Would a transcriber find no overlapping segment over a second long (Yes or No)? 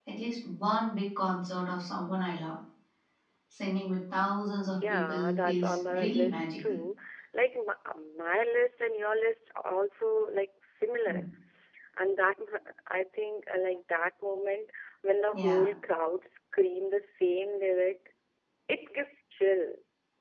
No